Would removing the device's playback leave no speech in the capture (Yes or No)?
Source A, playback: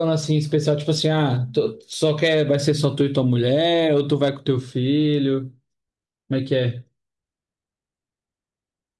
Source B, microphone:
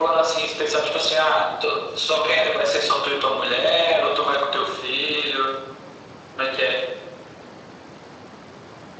Yes